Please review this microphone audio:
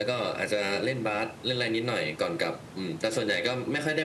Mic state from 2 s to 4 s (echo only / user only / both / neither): echo only